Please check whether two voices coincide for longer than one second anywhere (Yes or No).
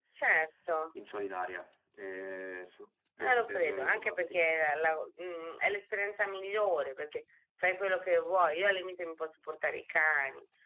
Yes